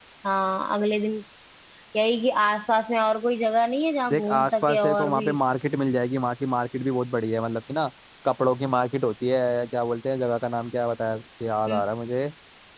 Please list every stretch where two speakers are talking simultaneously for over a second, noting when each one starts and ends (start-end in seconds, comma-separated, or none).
4.1-5.3